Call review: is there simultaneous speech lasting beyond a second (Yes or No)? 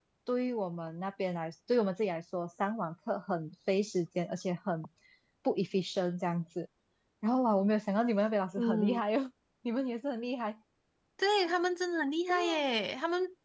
No